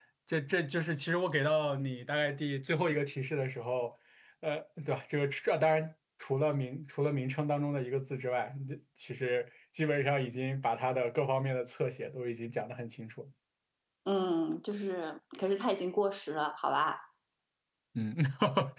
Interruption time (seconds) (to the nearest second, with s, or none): none